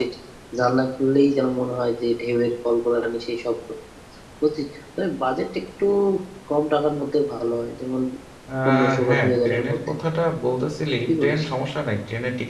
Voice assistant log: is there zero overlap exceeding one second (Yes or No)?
No